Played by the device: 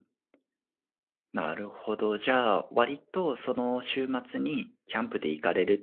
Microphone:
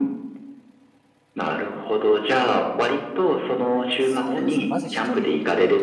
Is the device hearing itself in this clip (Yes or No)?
Yes